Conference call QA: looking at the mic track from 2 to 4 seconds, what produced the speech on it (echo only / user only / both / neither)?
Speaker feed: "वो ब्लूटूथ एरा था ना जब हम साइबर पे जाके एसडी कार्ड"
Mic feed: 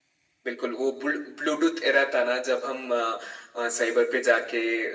echo only